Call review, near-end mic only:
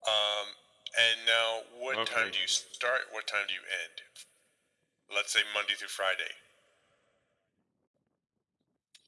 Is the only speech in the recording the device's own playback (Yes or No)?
No